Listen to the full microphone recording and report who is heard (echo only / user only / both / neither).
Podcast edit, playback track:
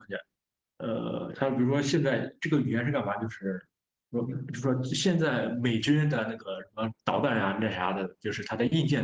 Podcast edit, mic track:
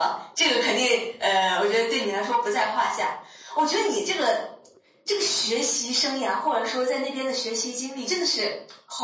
user only